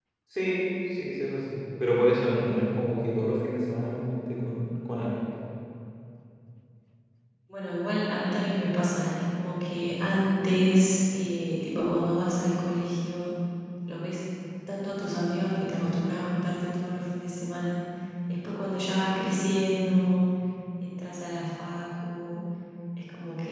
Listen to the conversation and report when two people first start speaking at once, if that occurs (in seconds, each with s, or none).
none